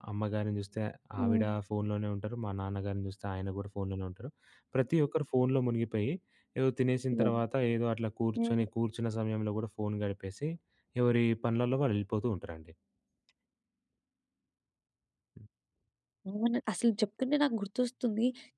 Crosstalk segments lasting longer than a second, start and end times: none

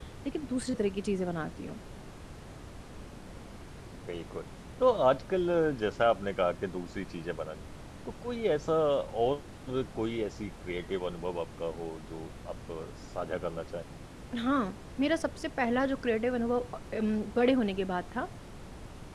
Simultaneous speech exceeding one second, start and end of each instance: none

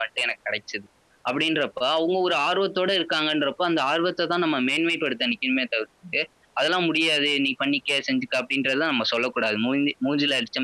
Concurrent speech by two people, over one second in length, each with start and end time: none

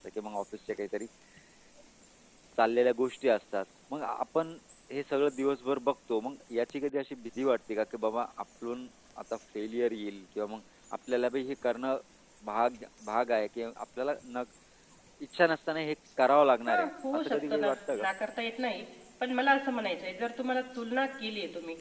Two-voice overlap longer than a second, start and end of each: 16.7-18.1

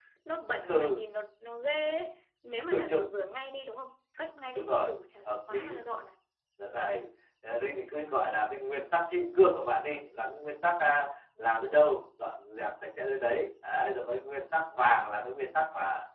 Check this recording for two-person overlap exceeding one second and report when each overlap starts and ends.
none

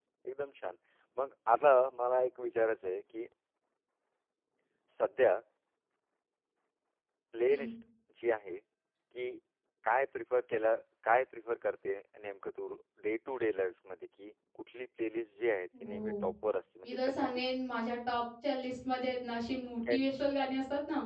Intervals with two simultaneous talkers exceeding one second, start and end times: none

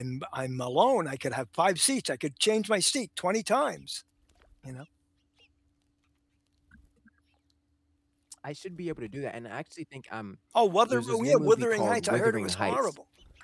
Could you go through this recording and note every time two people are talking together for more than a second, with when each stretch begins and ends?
10.9-12.9

